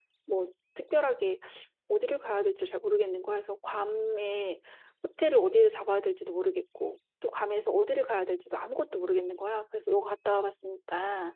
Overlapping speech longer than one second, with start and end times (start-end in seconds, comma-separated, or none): none